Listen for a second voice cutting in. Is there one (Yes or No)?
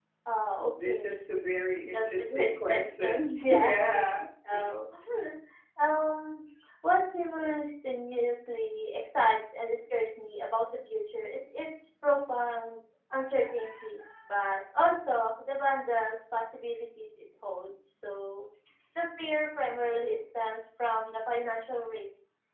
Yes